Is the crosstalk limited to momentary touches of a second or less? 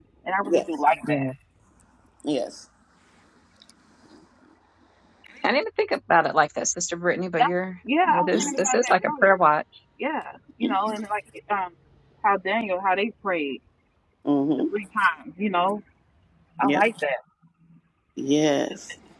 No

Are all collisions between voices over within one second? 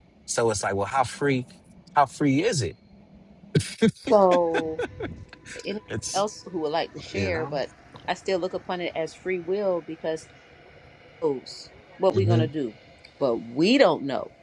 Yes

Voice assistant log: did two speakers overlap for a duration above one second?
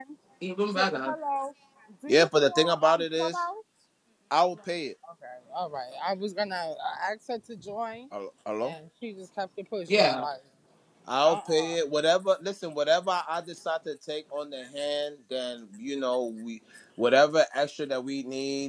Yes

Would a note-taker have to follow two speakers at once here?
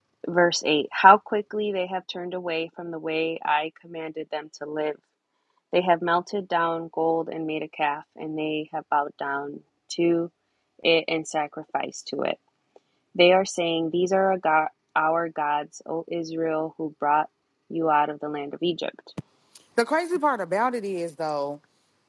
No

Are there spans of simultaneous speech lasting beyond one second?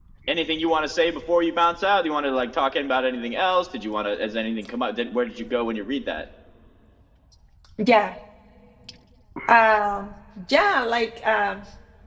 No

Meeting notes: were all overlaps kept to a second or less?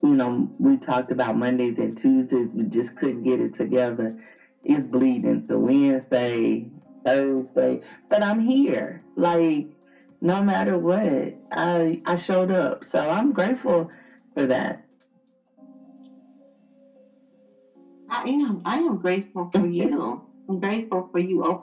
Yes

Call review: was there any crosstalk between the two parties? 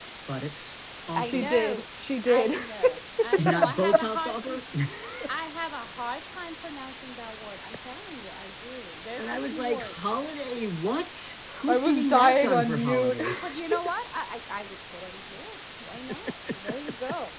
Yes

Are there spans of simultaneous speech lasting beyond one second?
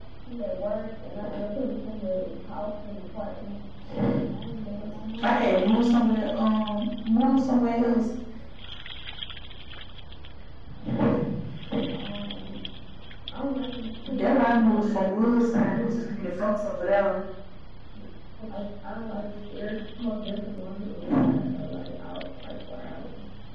Yes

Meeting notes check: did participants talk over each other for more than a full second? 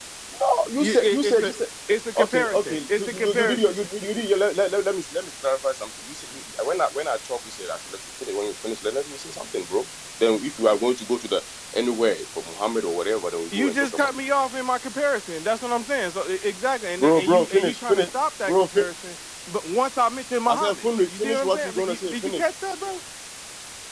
Yes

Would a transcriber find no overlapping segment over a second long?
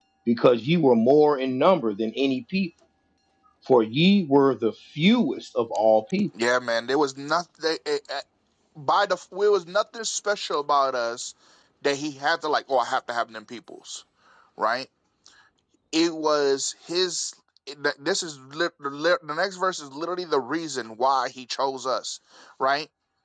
Yes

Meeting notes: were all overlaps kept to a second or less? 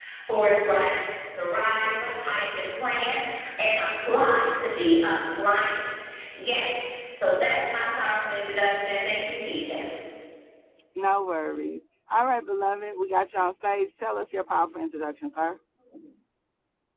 Yes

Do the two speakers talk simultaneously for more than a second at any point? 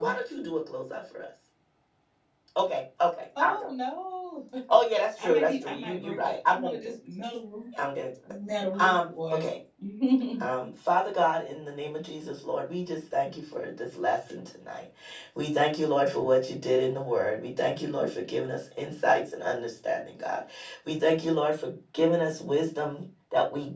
Yes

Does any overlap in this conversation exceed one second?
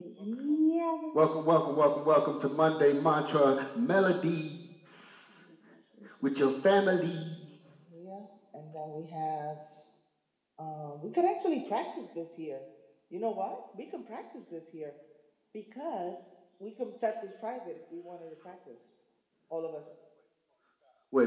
No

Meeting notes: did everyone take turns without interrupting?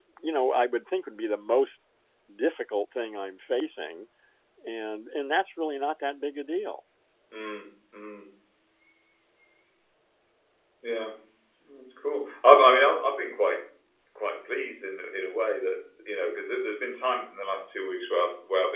Yes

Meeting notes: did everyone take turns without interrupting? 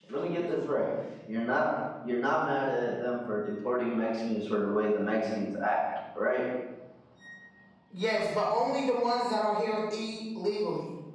Yes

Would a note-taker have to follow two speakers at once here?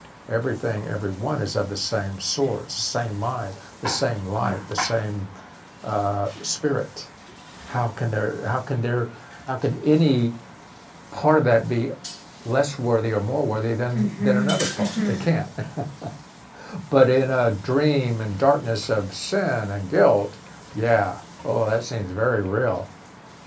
Yes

